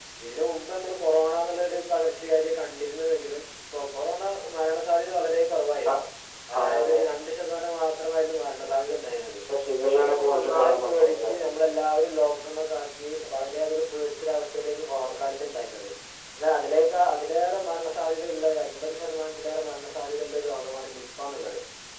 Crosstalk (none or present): present